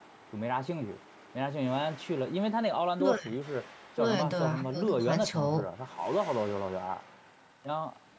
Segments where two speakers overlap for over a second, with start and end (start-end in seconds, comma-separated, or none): 4.0-5.7